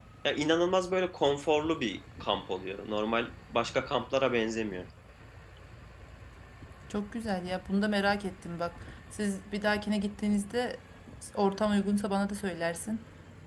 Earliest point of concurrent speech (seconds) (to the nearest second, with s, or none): none